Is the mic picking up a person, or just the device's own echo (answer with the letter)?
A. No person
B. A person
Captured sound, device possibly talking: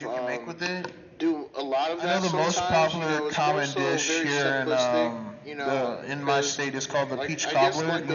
B